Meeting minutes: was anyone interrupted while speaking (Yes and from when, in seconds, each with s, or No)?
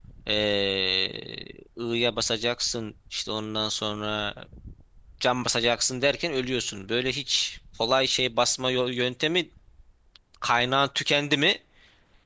No